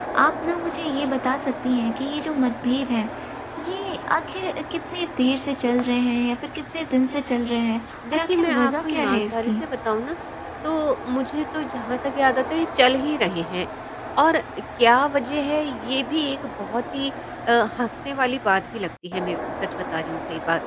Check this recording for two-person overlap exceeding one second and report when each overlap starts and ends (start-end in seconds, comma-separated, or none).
8.1-9.6